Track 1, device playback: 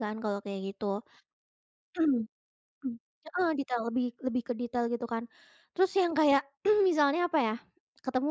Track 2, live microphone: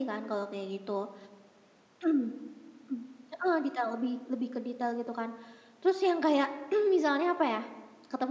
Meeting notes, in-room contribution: none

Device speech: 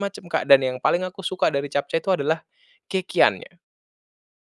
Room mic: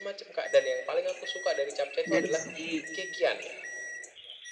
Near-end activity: present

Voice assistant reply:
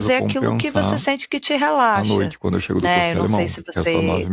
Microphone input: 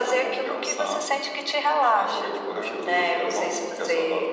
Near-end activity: present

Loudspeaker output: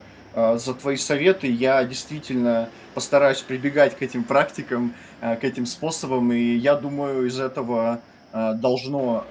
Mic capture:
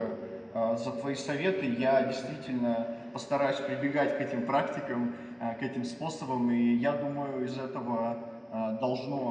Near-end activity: none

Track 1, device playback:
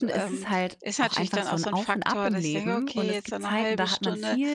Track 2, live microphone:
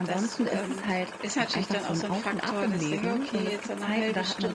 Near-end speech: none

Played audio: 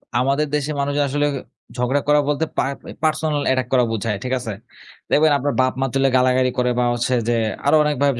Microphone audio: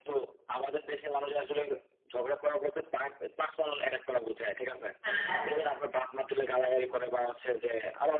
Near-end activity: present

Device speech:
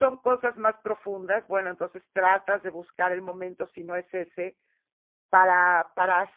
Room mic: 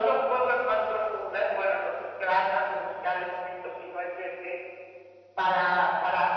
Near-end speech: none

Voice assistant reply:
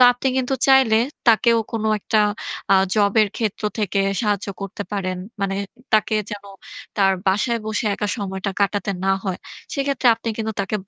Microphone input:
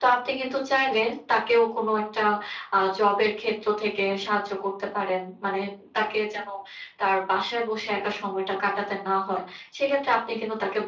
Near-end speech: none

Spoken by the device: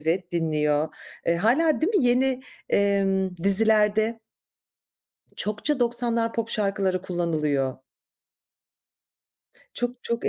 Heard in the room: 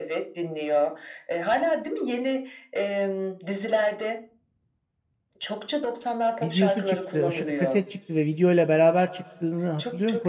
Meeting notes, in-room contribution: present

